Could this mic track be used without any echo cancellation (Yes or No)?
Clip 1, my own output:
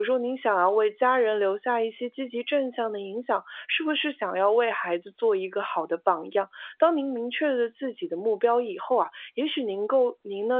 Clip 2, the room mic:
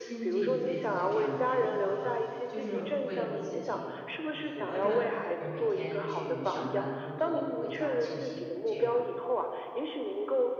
No